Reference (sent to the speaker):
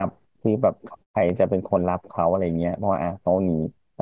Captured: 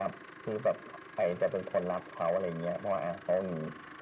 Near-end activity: none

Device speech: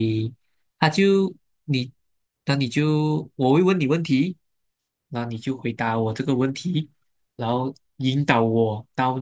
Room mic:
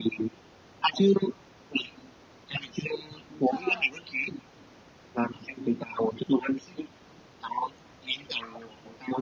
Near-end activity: present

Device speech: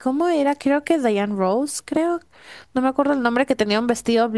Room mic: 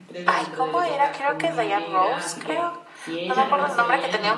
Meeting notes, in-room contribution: present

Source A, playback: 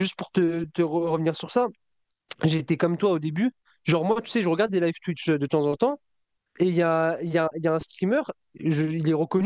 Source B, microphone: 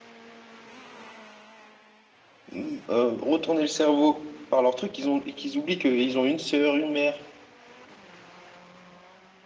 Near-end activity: present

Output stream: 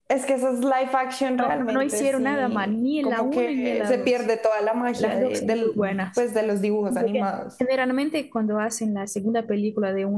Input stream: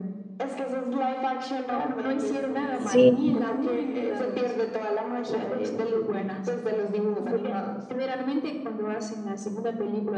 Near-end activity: present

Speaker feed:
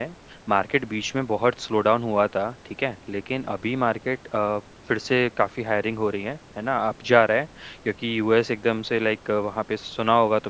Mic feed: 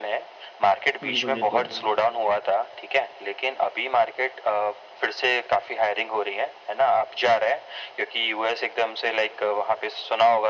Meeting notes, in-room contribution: present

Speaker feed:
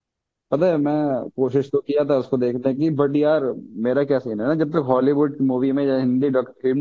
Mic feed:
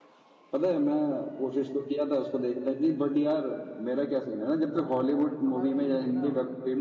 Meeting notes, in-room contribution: present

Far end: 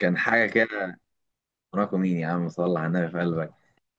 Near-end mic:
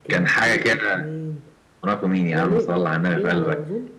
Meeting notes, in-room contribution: present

